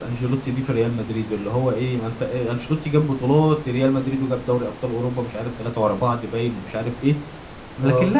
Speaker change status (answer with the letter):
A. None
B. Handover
A